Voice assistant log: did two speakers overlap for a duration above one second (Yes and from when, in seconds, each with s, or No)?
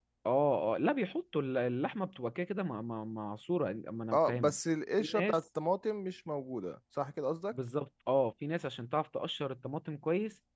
No